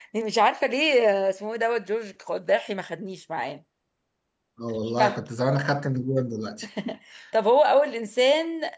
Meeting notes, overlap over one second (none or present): none